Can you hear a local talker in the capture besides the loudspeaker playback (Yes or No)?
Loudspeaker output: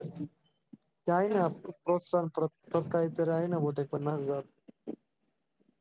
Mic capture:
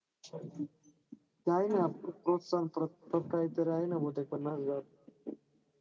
No